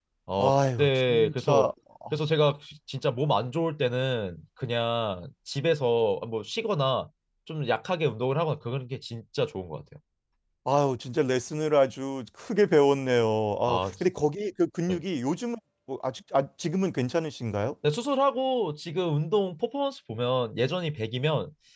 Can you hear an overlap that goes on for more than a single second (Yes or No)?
Yes